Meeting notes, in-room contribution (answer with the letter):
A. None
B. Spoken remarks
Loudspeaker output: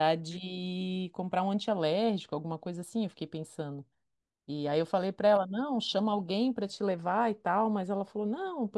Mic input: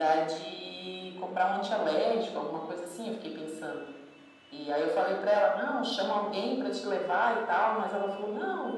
A